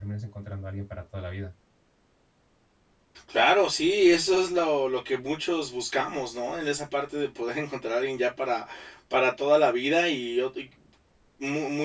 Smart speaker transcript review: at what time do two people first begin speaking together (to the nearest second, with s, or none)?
none